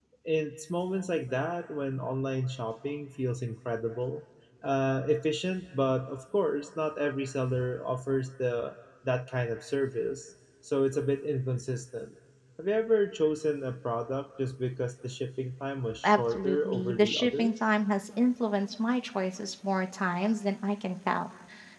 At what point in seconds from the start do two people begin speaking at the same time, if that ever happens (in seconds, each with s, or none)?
16.0 s